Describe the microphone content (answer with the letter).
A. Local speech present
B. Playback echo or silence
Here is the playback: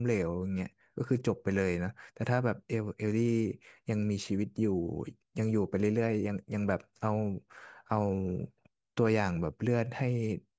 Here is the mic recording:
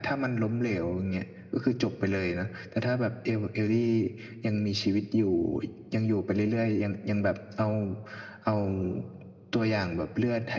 B